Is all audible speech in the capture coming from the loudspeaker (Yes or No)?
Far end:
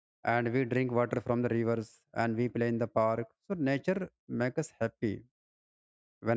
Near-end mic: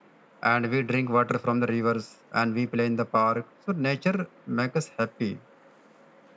Yes